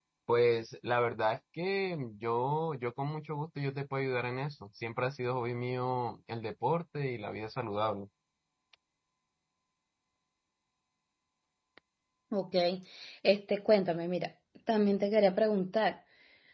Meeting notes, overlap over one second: none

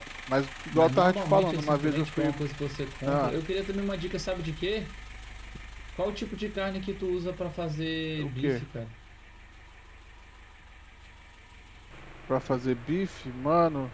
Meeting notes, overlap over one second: present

